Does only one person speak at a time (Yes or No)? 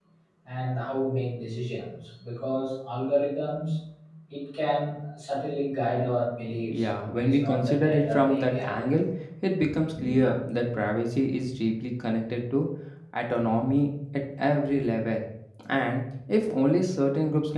No